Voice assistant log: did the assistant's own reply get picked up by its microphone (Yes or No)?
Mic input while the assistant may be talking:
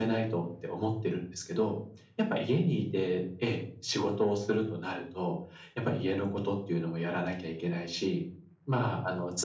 Yes